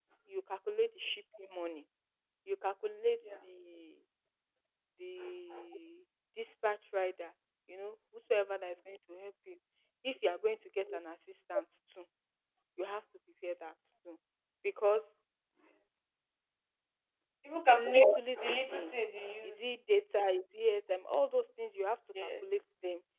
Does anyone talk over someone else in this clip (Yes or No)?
Yes